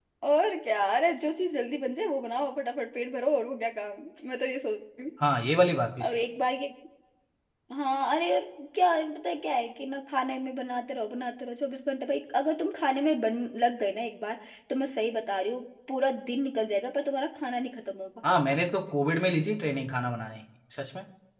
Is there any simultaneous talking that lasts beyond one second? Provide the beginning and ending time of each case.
none

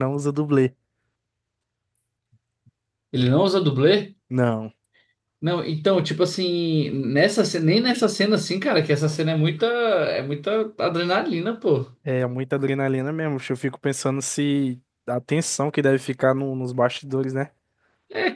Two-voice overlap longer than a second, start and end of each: none

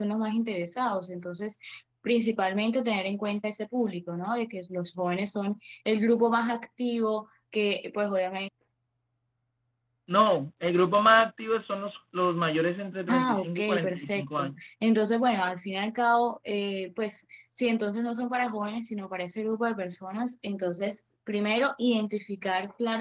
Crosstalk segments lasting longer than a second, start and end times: 13.1-14.5

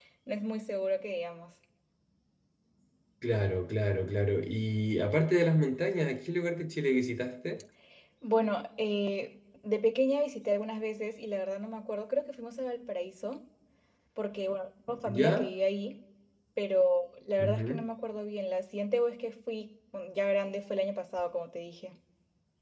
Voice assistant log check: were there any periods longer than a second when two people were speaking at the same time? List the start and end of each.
none

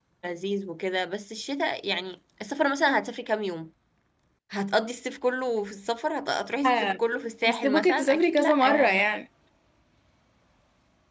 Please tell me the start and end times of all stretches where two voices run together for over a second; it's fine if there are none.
7.4-9.0

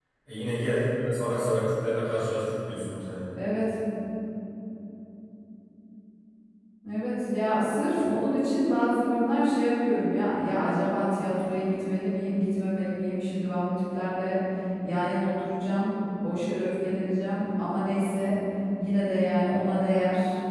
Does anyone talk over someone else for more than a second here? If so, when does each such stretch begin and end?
none

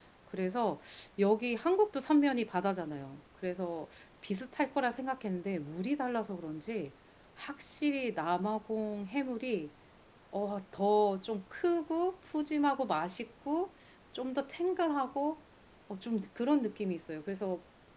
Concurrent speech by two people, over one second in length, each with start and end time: none

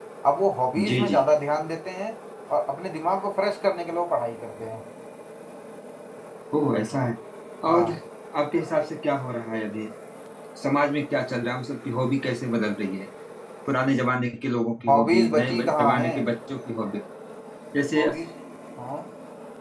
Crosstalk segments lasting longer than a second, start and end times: 14.9-16.1

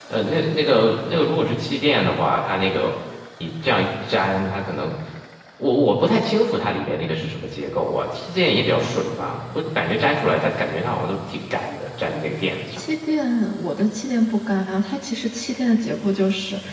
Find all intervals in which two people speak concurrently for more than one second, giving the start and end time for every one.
none

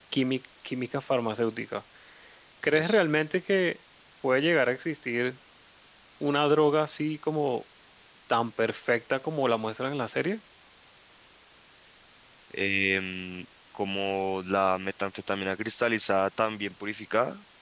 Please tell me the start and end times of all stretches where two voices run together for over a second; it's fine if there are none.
none

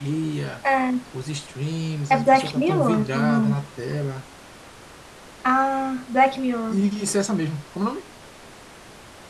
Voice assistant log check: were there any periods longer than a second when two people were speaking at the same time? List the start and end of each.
2.1-3.6

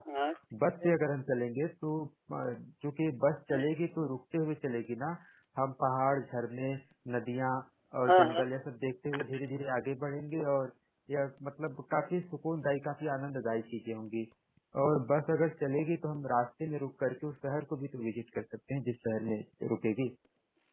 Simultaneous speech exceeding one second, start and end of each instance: none

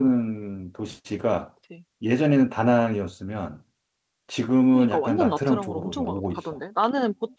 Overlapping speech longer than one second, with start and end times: 4.7-6.4

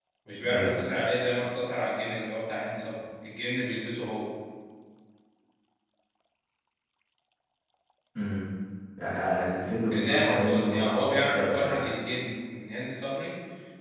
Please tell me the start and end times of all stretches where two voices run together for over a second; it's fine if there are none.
9.9-11.8

